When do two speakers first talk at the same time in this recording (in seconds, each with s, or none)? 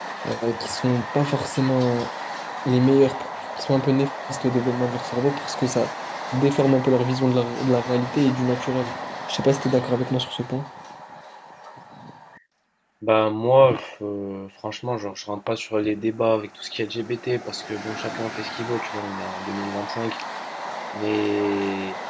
none